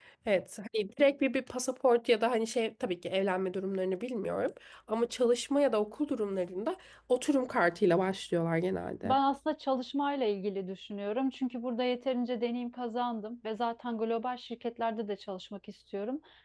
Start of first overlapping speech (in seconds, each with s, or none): none